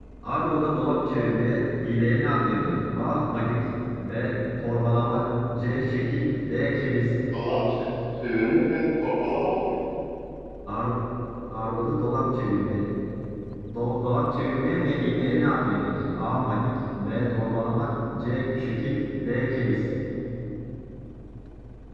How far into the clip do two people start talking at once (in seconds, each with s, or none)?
none